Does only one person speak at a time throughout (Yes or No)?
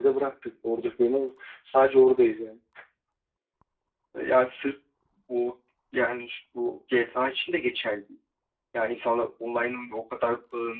Yes